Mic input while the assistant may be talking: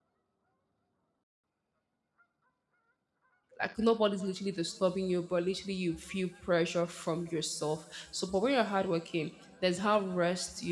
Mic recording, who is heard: user only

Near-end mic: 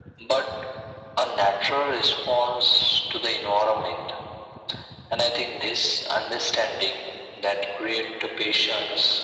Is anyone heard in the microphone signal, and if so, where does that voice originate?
echo only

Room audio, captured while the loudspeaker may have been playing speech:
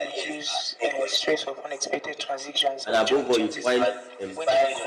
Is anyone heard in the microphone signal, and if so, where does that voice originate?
both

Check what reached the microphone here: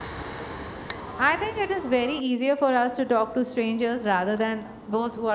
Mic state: user only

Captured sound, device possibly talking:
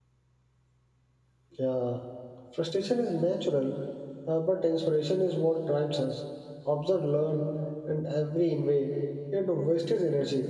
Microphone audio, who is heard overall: user only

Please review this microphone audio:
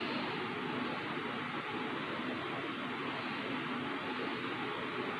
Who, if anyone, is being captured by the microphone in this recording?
neither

